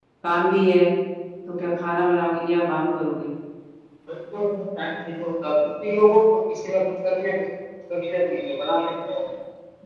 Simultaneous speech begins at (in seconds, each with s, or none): none